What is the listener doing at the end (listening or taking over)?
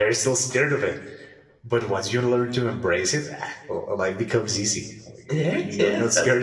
taking over